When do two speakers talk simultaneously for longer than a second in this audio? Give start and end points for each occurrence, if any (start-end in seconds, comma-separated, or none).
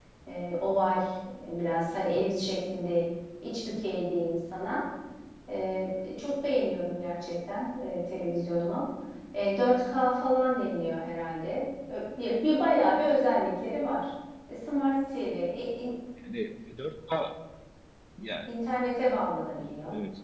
none